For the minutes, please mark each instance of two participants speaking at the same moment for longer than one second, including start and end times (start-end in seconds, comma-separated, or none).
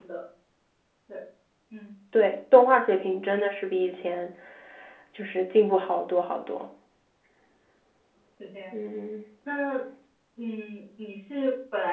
none